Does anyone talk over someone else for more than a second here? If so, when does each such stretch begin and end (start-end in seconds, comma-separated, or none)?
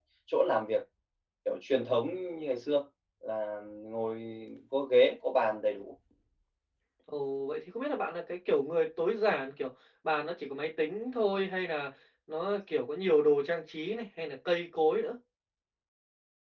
none